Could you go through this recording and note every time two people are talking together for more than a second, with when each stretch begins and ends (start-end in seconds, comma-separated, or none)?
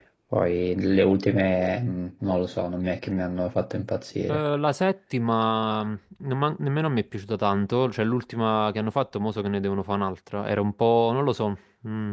none